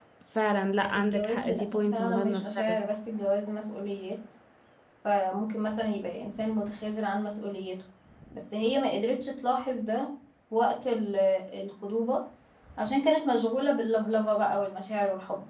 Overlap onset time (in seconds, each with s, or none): 0.8 s